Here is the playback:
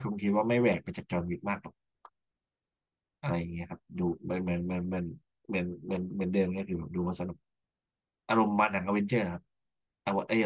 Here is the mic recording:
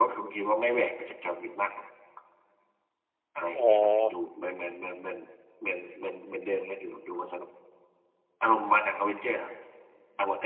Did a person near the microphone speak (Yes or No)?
Yes